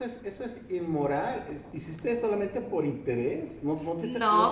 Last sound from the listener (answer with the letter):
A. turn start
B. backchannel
A